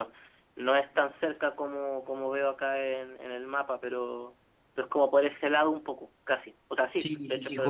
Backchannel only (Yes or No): No